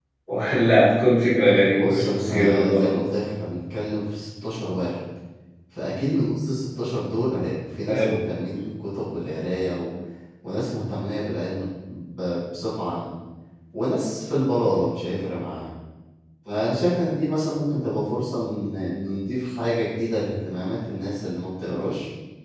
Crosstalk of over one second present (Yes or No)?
Yes